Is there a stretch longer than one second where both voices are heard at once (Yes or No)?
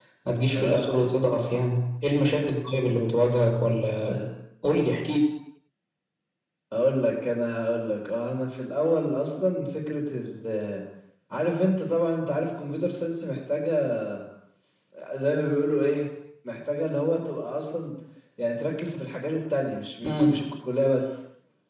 No